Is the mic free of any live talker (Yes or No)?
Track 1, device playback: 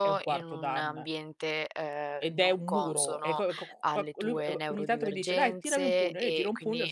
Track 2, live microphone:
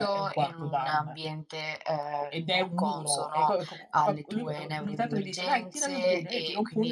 Yes